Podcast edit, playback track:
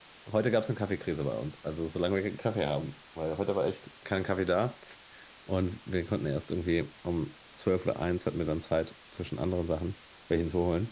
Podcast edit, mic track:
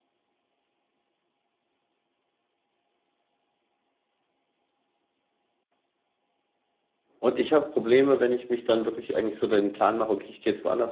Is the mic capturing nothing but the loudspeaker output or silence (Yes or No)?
No